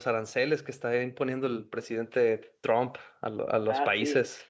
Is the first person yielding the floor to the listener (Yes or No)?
Yes